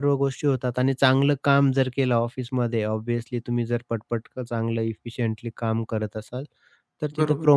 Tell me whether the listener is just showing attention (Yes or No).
Yes